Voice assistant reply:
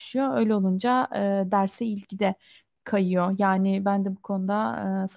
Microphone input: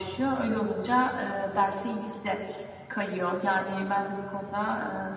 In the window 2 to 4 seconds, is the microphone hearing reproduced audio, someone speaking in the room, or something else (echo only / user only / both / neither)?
echo only